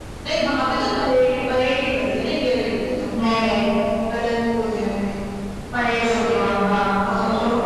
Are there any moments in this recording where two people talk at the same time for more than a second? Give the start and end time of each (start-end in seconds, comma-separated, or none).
none